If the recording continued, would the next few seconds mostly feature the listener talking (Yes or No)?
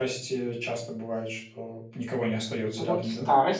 Yes